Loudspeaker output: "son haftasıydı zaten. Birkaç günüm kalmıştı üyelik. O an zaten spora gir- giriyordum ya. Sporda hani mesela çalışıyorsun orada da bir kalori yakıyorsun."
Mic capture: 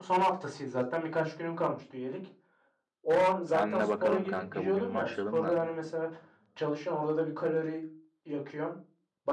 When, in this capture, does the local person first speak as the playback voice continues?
3.5 s

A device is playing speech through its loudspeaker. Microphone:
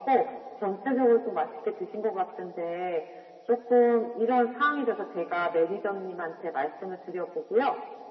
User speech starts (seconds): none

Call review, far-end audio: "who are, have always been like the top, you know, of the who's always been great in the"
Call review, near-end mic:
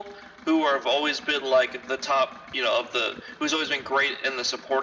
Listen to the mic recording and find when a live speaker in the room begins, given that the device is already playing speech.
none

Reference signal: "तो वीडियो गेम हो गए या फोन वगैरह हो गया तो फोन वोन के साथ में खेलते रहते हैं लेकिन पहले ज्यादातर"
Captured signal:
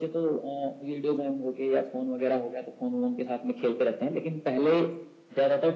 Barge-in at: none

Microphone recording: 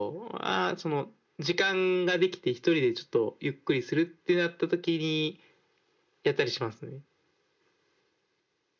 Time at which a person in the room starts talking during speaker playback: none

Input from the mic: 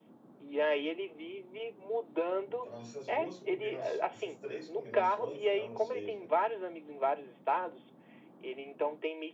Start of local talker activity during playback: 2.4 s

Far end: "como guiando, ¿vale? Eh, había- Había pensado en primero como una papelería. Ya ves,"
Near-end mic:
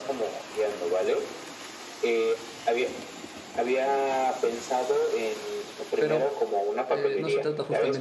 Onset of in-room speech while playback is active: 6.0 s

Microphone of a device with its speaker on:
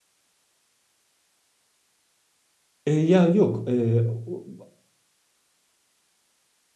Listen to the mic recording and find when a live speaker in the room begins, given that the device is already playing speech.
2.8 s

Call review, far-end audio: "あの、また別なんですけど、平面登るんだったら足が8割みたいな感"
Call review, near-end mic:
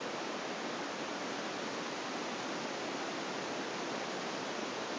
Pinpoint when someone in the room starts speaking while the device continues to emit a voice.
none

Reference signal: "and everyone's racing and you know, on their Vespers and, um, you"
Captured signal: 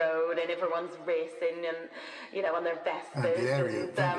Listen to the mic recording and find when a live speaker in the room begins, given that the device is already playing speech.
3.1 s

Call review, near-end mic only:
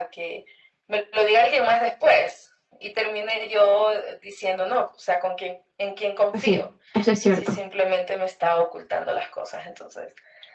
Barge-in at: 6.3 s

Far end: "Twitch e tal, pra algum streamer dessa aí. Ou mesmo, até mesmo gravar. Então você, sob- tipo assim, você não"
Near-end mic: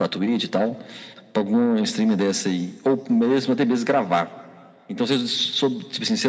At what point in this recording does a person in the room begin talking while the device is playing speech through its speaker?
none

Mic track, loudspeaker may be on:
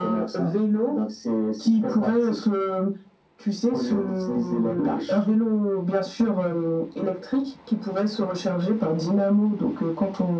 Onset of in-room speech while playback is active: none

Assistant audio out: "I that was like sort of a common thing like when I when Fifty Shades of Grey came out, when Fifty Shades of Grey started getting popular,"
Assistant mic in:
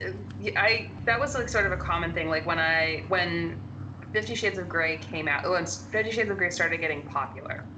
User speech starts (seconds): none

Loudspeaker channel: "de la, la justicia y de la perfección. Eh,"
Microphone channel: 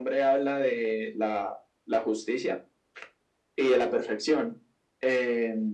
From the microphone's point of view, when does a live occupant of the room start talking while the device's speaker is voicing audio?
none

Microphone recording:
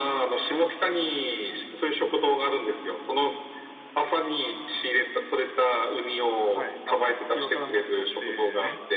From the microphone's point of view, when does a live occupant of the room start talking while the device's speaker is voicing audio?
6.5 s

